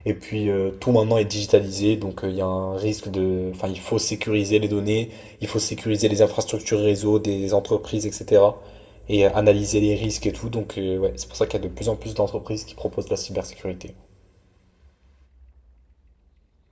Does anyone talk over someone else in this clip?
No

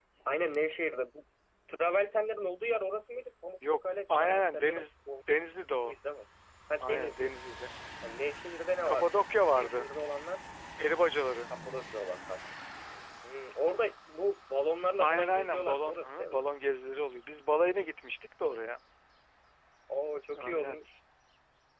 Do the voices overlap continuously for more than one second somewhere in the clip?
Yes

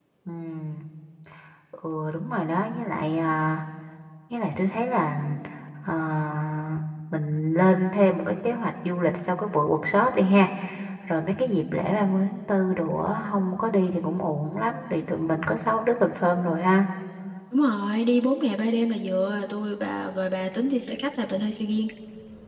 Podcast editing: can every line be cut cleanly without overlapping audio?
Yes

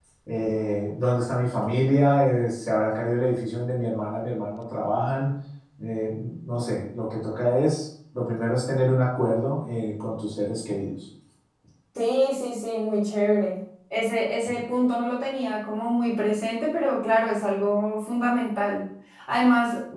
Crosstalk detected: No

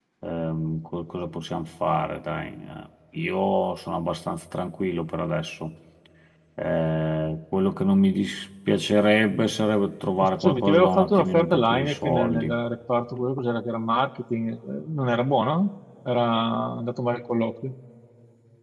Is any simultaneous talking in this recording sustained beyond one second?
Yes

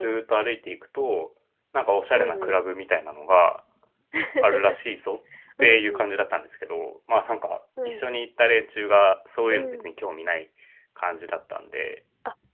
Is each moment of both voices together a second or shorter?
Yes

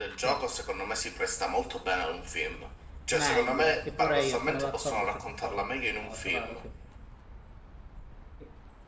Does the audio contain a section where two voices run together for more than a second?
Yes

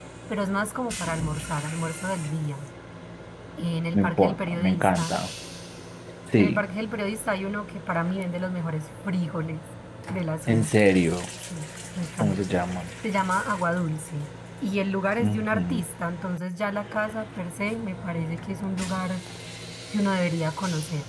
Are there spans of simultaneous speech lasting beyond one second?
Yes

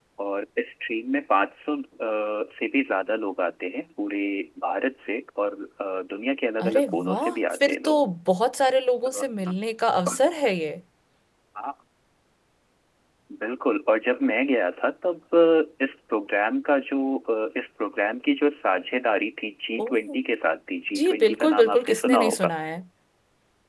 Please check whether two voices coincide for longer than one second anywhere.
Yes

